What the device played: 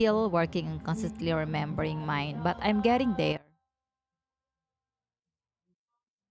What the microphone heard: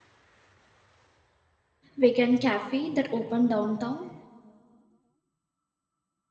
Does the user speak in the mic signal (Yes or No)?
Yes